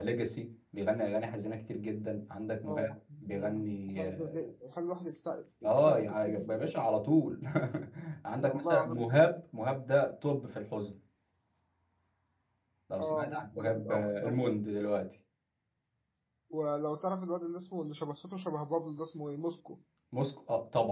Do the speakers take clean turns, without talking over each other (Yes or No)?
No